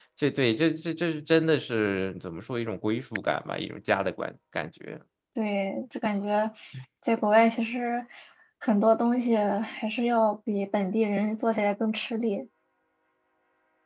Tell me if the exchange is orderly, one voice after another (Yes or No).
Yes